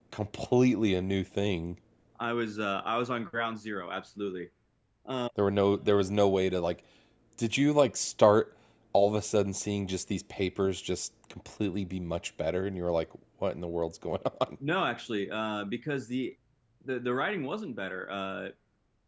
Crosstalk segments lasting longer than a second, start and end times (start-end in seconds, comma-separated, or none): none